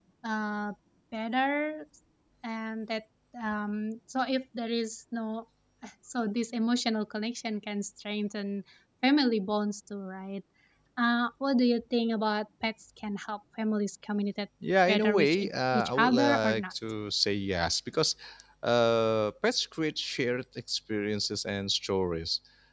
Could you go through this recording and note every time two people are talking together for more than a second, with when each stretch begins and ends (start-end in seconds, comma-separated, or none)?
14.9-16.7